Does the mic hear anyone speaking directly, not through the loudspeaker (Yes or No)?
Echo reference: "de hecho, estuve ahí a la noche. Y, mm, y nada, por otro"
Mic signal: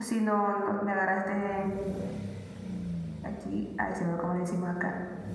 Yes